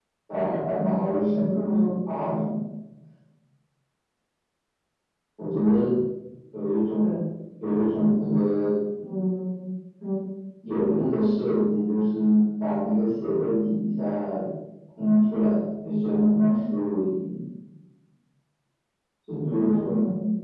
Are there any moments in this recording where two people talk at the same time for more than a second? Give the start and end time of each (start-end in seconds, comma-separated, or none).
none